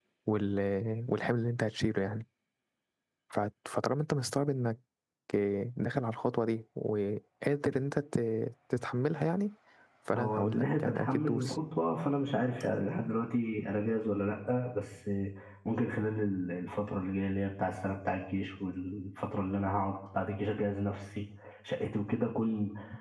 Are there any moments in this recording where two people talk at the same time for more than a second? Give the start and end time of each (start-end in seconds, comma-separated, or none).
10.1-11.6